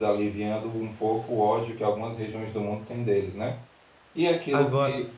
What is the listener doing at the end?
listening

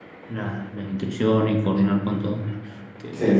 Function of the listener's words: taking over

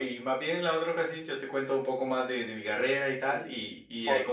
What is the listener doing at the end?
taking over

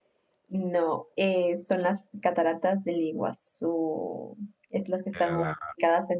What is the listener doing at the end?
listening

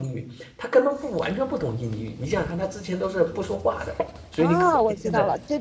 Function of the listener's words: taking over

